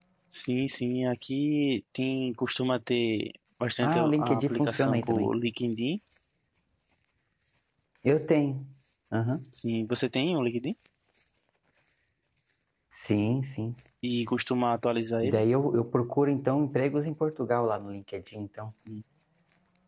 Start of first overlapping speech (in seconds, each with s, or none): 3.8 s